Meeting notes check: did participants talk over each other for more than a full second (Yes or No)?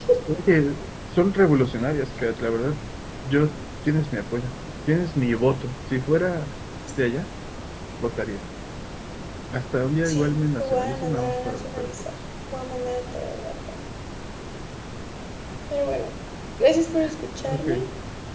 Yes